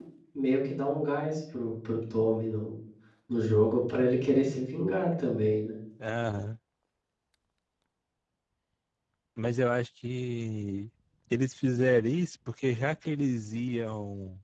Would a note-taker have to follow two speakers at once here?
No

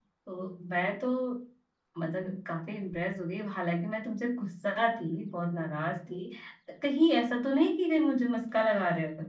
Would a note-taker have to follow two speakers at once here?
No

